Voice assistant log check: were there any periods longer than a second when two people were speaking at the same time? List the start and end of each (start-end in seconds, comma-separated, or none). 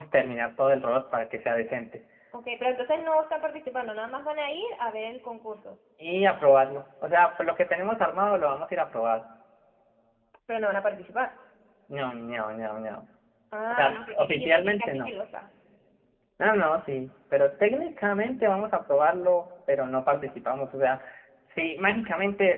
13.7-15.1